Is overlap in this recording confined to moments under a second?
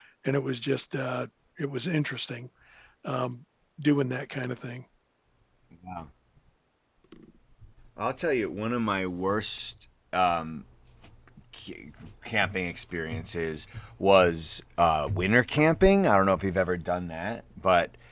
Yes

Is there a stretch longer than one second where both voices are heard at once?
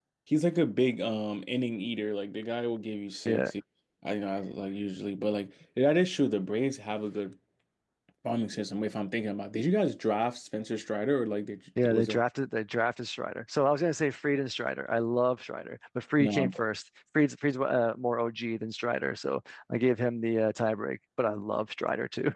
No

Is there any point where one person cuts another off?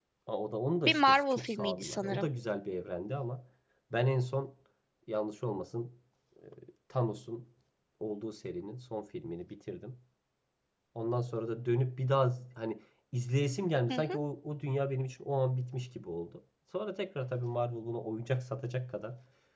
Yes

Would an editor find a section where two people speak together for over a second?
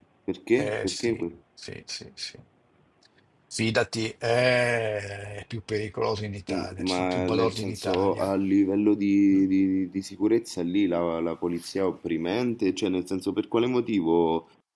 Yes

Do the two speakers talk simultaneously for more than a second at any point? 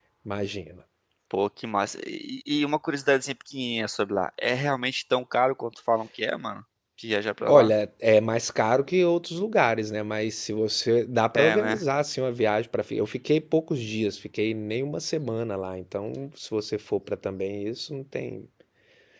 No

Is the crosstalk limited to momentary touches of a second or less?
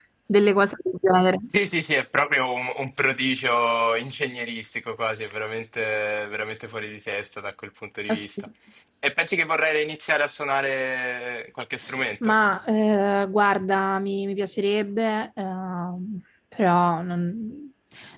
Yes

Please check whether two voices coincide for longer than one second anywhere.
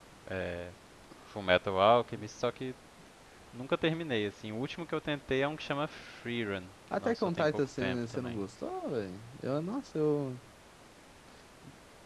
Yes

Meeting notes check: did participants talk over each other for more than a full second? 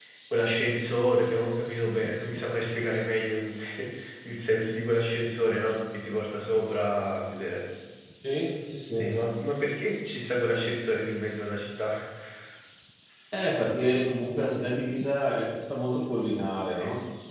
No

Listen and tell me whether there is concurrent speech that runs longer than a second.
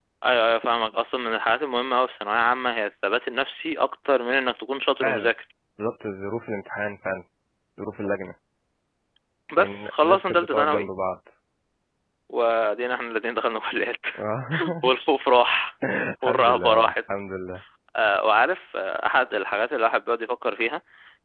Yes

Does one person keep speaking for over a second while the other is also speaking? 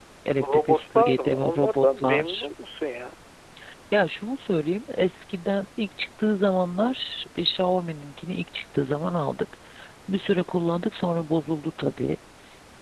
Yes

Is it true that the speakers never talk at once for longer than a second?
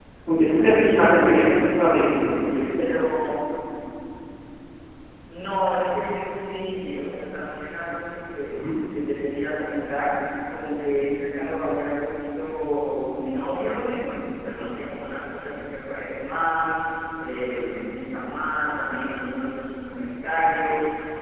Yes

